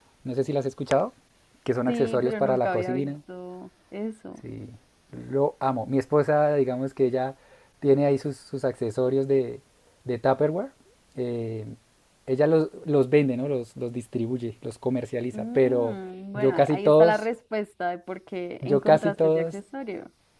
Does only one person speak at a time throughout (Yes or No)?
No